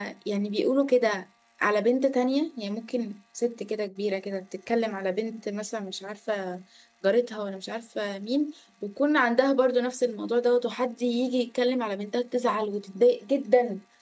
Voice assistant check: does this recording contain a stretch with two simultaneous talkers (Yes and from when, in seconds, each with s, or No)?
No